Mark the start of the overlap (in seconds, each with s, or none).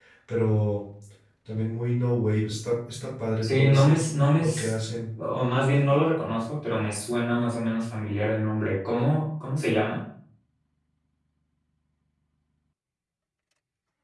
3.4 s